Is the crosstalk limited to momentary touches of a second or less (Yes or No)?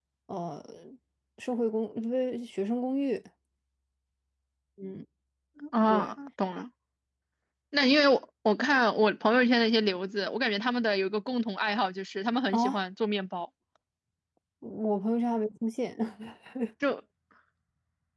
Yes